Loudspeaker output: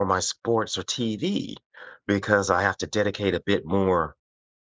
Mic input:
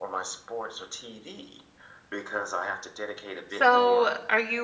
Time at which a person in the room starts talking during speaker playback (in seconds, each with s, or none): 3.5 s